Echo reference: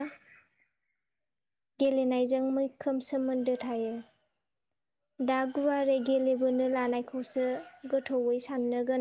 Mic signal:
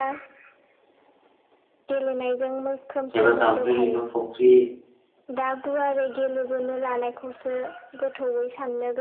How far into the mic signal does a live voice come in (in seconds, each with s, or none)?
3.2 s